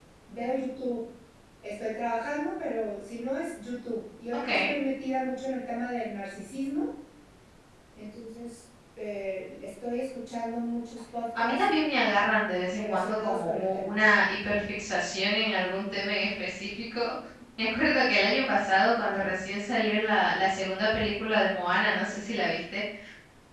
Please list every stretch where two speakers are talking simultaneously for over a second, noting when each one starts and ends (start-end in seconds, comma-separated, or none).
12.7-14.0